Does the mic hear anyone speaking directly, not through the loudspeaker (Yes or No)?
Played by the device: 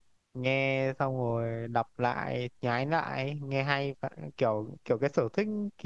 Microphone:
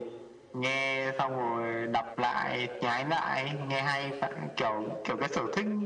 No